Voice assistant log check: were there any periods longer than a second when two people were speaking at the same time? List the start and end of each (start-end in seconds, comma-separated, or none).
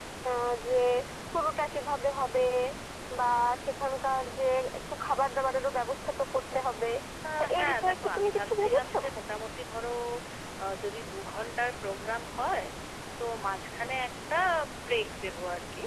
7.4-9.0